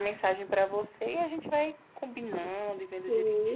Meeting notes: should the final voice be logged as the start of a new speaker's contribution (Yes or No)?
Yes